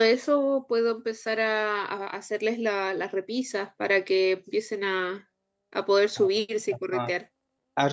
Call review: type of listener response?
taking over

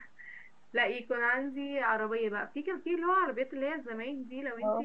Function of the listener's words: listening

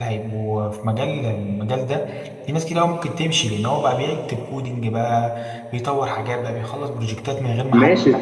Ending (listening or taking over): taking over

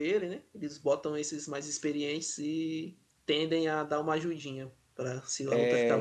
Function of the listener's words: taking over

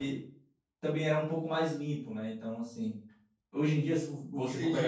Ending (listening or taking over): taking over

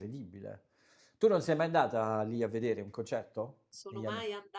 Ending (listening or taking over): taking over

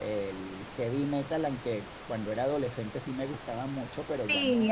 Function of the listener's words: taking over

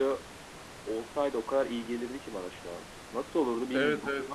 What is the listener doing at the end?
taking over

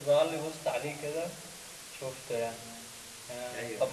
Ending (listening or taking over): listening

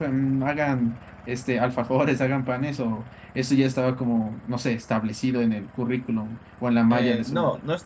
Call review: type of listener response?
taking over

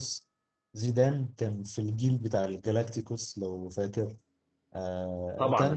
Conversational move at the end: listening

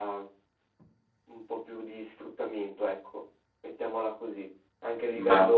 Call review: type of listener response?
listening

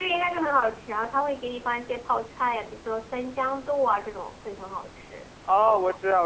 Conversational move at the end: taking over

